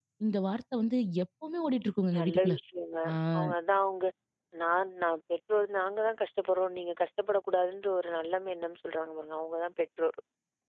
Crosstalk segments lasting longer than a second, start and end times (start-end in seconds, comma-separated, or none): none